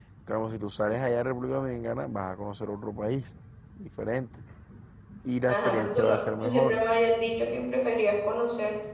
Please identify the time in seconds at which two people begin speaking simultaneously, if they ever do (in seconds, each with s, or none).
5.5 s